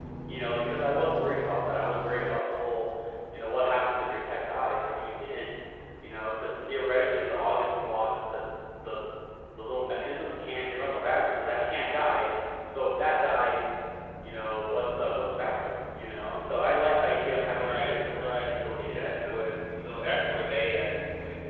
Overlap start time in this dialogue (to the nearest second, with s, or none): 18 s